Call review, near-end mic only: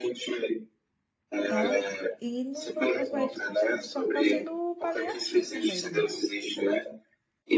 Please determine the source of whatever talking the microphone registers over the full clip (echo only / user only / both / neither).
both